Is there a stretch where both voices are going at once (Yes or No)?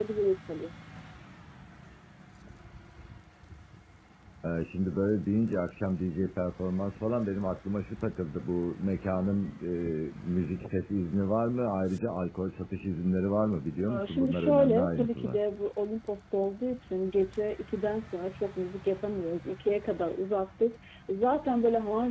Yes